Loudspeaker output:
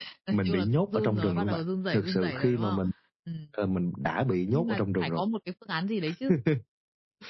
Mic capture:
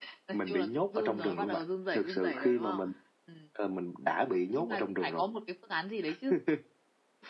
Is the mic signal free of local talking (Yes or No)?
Yes